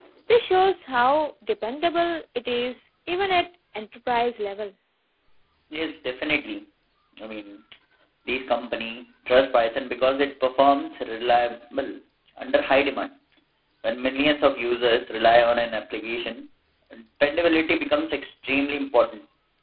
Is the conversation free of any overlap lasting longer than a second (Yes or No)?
Yes